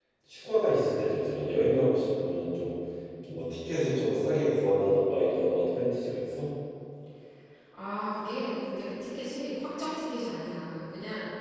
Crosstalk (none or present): none